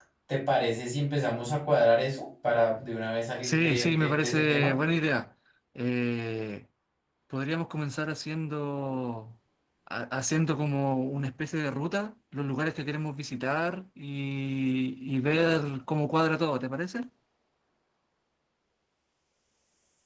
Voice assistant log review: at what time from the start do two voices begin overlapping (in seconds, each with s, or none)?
3.4 s